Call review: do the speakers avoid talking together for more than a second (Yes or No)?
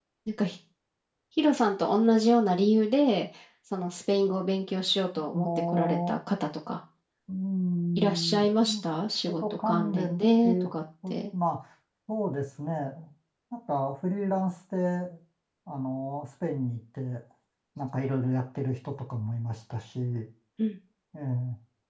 No